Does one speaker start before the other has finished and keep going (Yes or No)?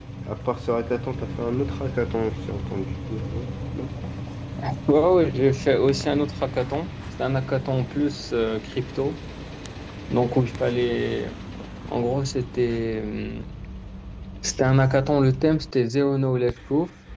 No